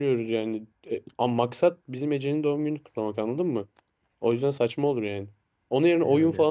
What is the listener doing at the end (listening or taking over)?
listening